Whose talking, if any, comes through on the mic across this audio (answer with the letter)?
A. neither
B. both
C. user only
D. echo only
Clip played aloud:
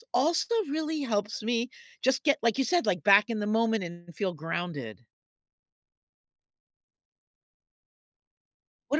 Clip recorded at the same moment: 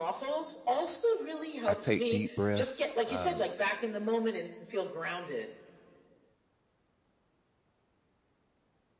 B